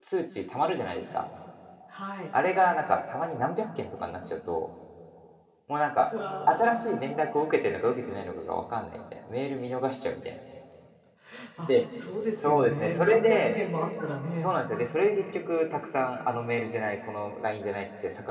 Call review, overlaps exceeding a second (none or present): present